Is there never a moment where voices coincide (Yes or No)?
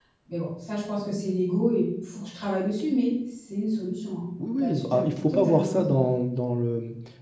No